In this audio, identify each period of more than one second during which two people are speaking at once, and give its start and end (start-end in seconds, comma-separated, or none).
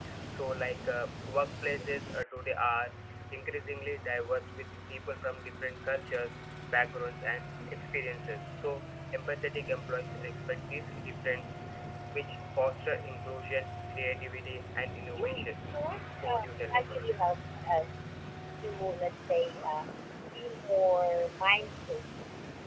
16.1-17.4